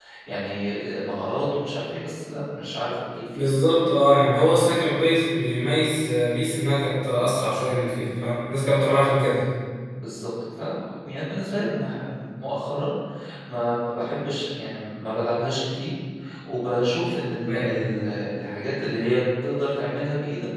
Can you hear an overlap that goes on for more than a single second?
No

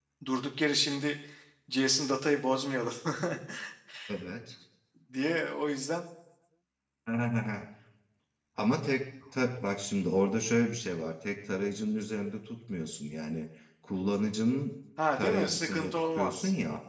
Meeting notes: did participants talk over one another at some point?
Yes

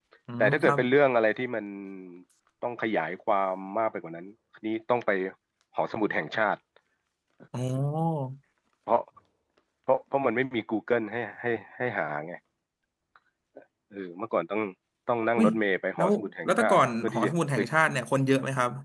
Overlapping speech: Yes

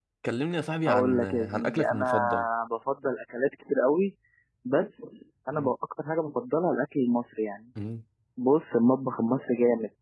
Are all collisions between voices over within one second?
No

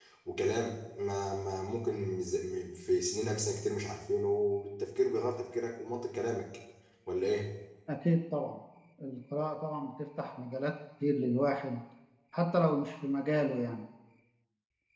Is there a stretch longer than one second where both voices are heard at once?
No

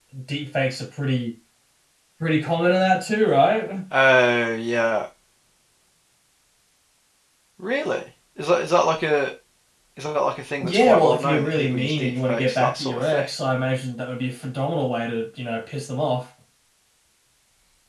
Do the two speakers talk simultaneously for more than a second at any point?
Yes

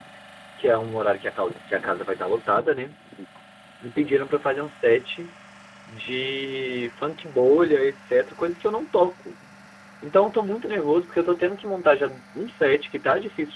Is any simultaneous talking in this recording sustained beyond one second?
No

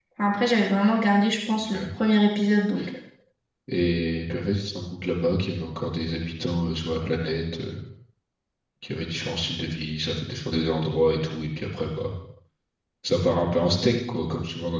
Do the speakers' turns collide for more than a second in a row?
No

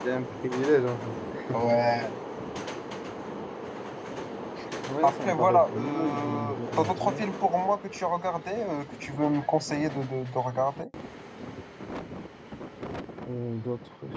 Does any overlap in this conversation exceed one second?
Yes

